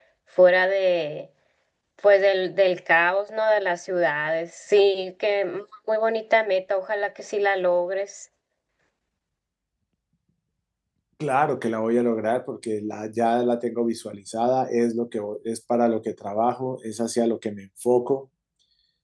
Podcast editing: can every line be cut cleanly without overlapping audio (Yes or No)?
Yes